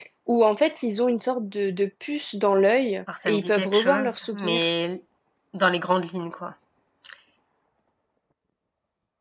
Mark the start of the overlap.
3.1 s

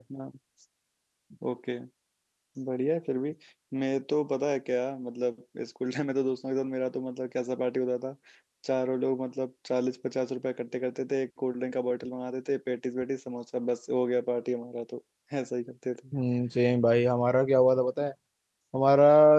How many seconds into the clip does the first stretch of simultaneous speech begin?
none

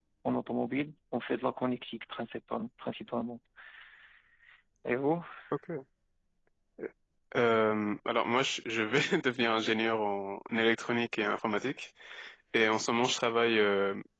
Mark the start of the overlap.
none

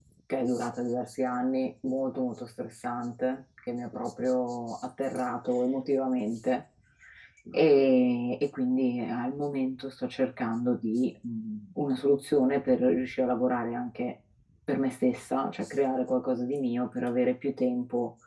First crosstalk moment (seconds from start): none

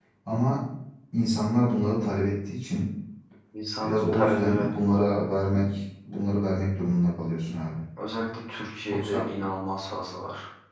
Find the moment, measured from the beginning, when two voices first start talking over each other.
3.8 s

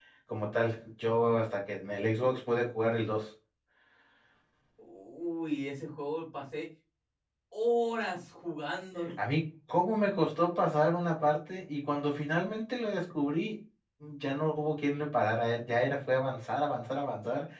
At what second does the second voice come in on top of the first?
none

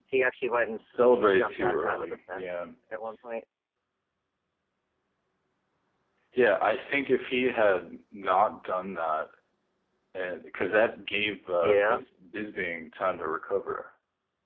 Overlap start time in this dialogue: 1.2 s

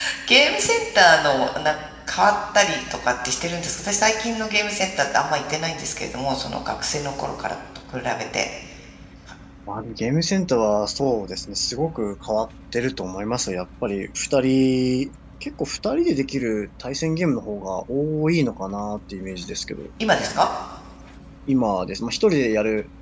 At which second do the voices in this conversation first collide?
none

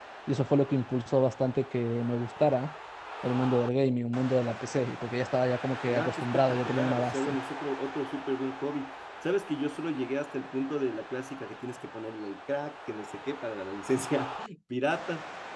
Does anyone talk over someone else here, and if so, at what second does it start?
5.9 s

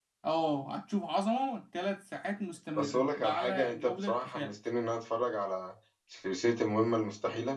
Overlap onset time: 2.8 s

